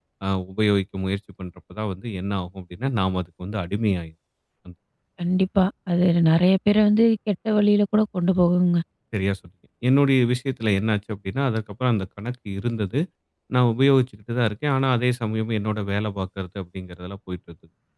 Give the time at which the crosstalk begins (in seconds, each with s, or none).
none